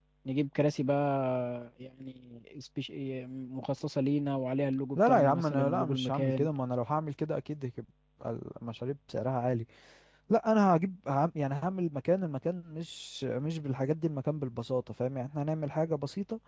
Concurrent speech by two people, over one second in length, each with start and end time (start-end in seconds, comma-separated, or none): 5.0-6.5